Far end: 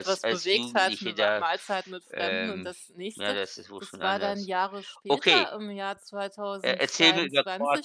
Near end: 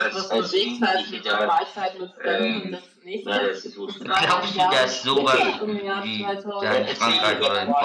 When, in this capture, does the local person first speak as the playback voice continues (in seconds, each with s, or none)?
4.1 s